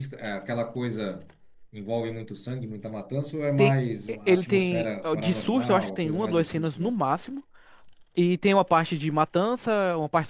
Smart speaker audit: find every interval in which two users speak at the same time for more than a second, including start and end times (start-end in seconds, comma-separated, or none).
4.3-7.0